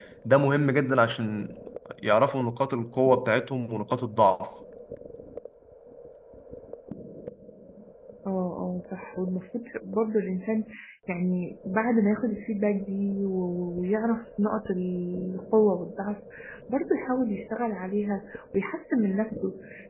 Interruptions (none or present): none